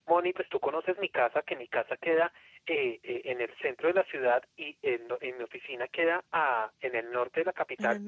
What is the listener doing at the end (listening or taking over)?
listening